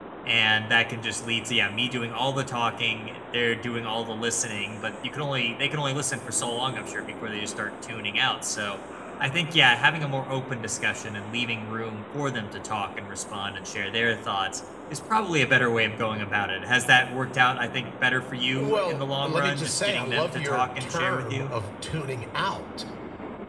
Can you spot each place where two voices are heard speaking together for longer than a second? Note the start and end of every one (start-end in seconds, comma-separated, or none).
18.6-21.5